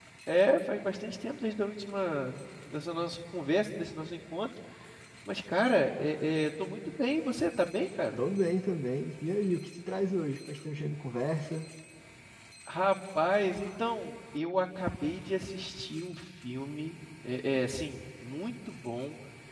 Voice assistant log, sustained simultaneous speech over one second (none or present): none